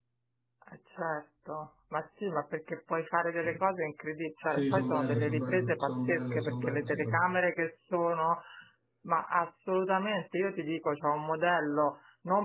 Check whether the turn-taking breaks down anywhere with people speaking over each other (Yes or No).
Yes